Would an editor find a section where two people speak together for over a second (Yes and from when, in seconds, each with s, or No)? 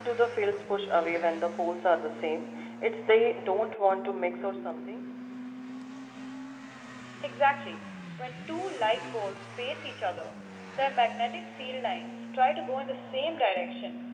No